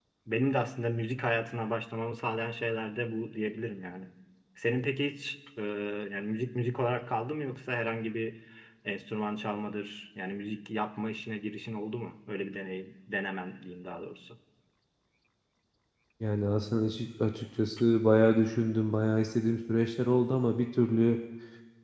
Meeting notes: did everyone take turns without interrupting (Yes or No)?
Yes